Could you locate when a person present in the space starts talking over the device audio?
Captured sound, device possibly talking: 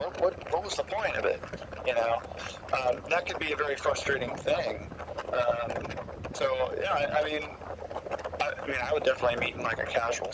none

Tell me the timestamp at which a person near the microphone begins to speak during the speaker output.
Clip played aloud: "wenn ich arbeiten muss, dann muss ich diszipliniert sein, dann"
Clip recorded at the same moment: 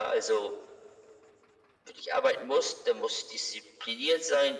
none

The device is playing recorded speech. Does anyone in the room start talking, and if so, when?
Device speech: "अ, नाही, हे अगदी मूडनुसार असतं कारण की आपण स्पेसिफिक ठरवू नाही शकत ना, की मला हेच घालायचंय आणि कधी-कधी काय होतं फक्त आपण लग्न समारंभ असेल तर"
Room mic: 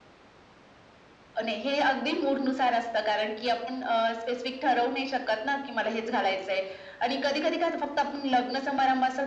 none

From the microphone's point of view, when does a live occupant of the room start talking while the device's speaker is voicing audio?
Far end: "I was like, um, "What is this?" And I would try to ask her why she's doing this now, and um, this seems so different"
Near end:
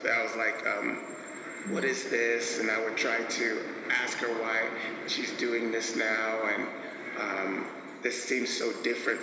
1.6 s

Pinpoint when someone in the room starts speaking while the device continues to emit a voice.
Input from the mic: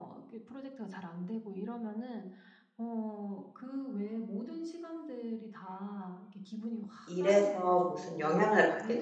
7.0 s

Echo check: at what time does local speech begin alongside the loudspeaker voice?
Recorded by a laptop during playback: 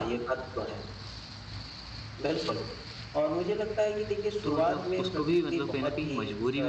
4.4 s

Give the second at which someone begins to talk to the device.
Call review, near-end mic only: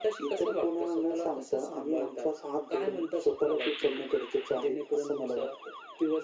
none

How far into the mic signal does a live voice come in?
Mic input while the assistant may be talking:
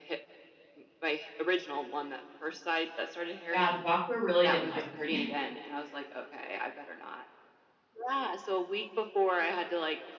3.5 s

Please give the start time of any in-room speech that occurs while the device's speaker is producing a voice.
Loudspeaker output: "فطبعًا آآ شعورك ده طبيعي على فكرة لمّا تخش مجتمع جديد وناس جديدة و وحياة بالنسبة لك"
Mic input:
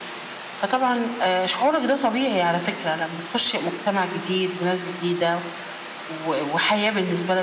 none

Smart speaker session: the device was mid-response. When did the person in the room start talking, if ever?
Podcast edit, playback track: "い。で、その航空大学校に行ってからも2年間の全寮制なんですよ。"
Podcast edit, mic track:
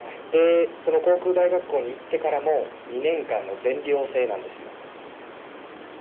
none

